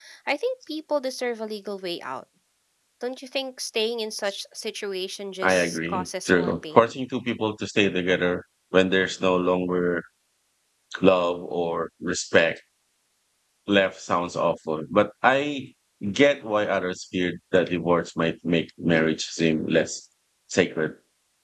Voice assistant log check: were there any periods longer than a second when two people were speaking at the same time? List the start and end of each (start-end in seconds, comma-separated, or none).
5.4-6.9